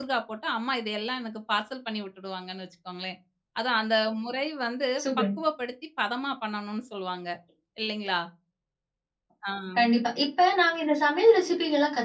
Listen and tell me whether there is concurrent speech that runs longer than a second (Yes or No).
No